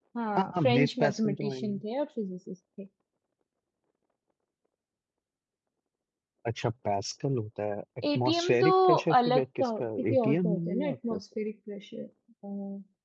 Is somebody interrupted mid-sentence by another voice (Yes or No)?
Yes